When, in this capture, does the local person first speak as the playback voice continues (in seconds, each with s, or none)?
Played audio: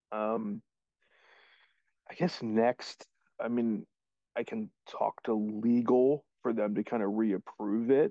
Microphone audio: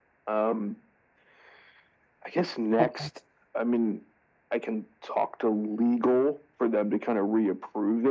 2.8 s